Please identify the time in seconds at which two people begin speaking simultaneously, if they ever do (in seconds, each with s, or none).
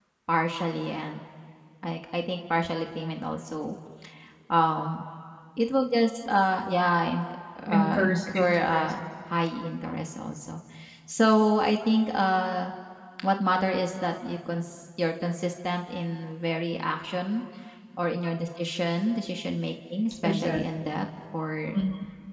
7.7 s